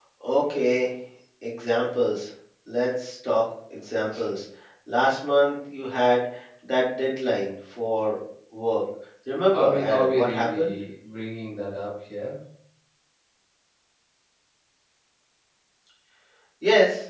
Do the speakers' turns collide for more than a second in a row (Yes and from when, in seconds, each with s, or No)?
Yes, from 9.5 s